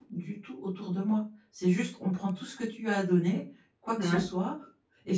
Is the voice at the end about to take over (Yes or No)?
No